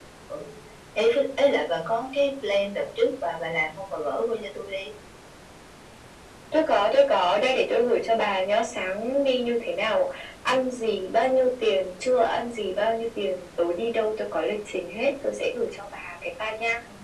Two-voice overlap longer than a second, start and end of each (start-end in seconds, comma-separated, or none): none